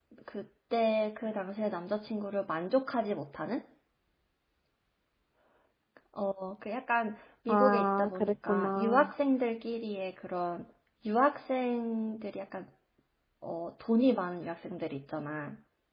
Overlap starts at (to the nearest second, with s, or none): 7 s